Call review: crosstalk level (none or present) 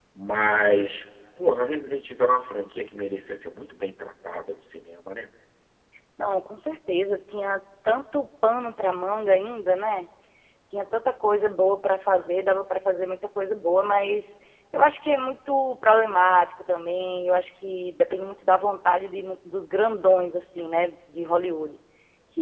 none